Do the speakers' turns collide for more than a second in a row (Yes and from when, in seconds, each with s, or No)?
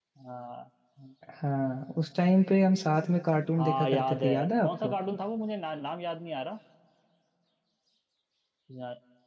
Yes, from 3.6 s